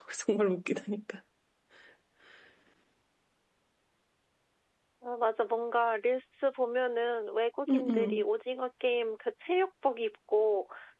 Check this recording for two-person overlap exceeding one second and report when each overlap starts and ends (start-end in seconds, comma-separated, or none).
none